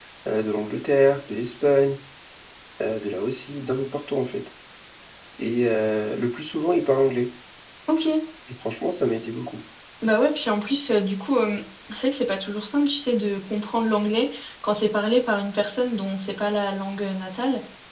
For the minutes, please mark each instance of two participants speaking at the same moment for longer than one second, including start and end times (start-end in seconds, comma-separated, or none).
none